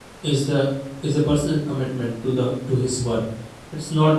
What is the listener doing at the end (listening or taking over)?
listening